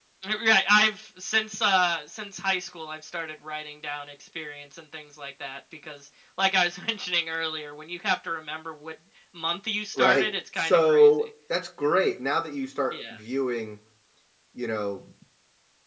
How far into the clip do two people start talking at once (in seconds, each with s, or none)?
9.9 s